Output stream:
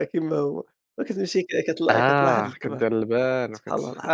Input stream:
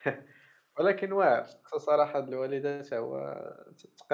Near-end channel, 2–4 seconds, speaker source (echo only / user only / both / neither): user only